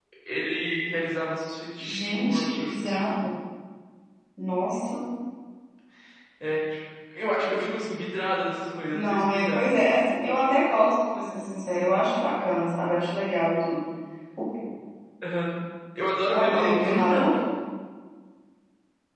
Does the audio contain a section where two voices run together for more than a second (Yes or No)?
Yes